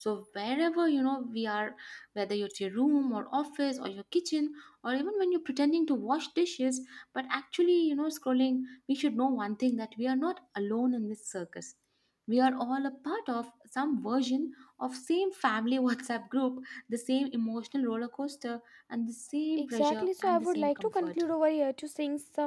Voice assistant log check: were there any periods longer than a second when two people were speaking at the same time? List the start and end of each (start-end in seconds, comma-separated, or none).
19.6-21.2